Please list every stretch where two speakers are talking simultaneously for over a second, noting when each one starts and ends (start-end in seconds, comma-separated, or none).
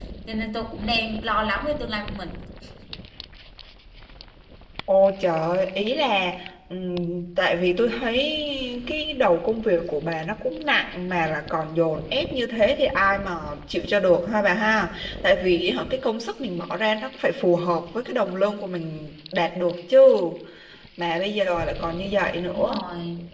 none